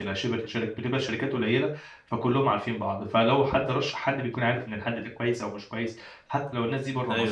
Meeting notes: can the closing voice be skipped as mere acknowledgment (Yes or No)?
Yes